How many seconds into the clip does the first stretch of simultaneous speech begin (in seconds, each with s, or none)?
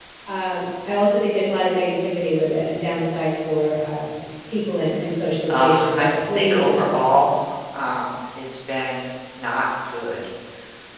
5.5 s